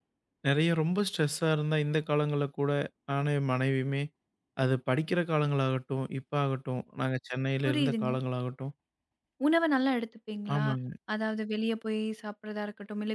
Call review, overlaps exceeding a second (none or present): none